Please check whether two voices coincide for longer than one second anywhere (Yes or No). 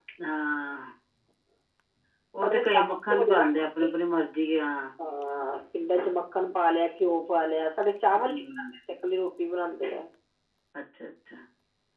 Yes